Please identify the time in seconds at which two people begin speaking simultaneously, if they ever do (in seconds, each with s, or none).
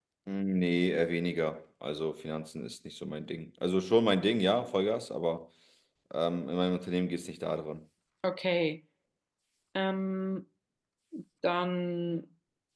none